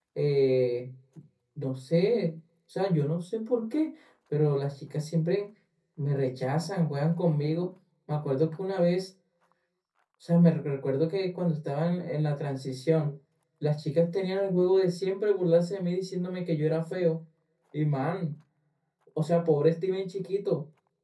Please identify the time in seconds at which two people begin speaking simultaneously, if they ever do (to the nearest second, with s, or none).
none